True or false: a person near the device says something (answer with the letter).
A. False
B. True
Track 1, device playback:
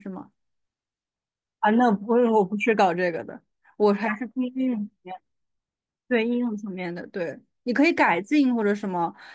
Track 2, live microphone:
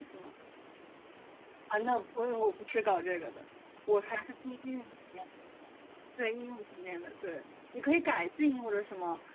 A